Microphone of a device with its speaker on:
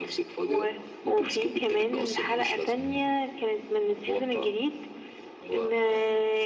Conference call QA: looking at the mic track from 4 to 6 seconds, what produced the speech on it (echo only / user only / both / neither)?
echo only